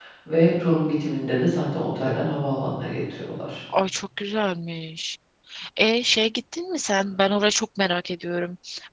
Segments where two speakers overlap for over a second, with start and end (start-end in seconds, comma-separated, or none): none